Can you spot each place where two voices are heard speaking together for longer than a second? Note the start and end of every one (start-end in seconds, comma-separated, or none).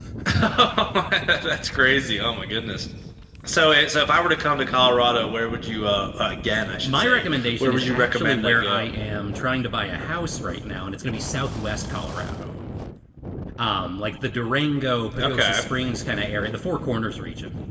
6.8-8.9